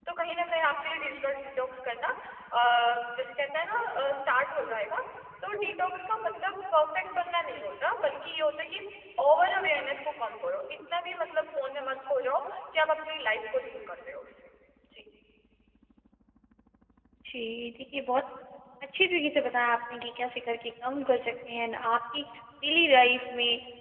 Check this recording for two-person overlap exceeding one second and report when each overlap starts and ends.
none

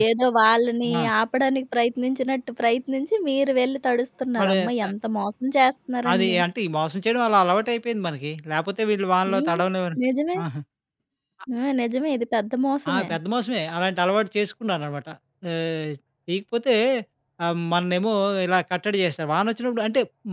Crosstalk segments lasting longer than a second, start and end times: none

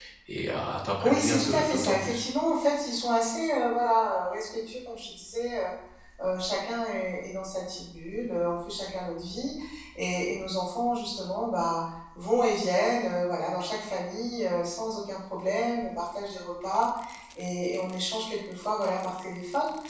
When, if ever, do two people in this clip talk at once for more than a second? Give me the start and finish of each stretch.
1.0-2.2

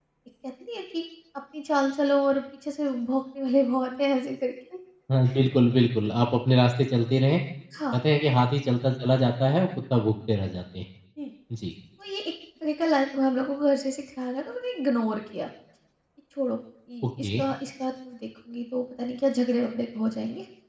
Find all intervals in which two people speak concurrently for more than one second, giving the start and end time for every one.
none

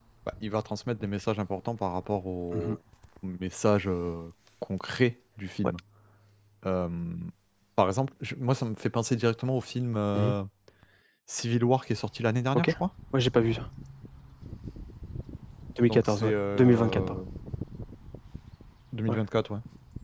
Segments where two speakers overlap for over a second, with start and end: 15.8-17.2

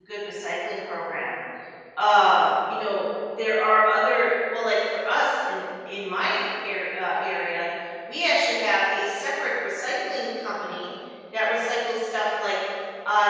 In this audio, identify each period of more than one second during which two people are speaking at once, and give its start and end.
none

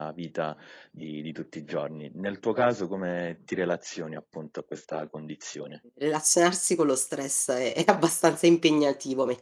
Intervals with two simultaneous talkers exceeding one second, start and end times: none

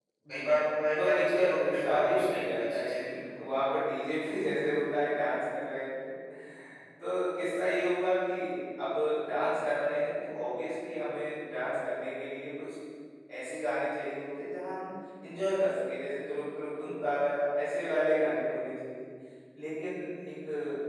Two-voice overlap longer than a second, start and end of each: 0.9-3.2

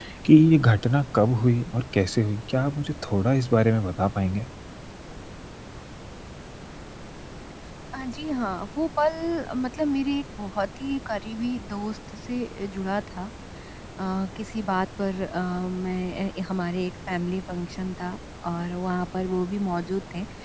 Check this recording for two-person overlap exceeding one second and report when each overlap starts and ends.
none

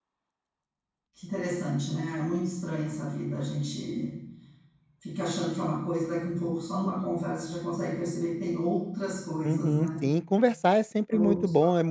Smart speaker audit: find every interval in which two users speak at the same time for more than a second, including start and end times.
none

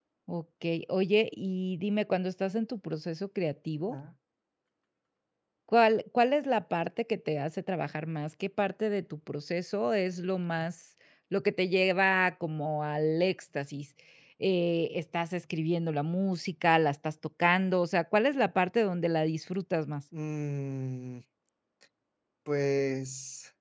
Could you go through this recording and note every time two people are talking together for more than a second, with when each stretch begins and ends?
none

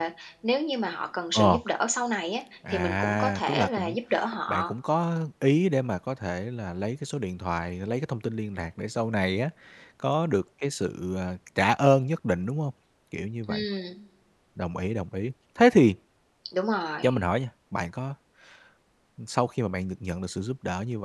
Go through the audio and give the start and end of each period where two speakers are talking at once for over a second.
2.7-3.9

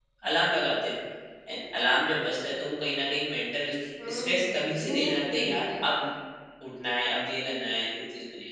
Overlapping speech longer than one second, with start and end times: 4.1-5.6

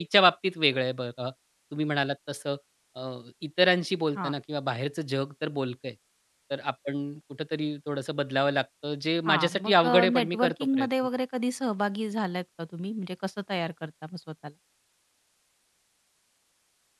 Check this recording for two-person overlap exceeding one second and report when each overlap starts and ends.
9.3-10.9

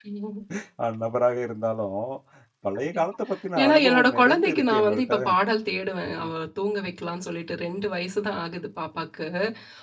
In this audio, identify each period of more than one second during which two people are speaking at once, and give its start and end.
3.6-5.1

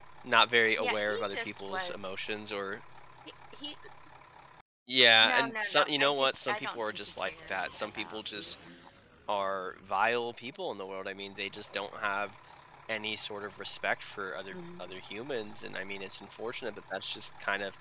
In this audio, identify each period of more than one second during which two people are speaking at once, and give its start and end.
0.8-2.1, 5.2-8.5

